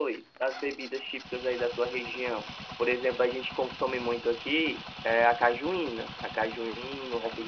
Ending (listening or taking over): listening